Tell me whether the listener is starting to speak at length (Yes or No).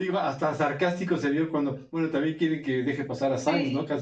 Yes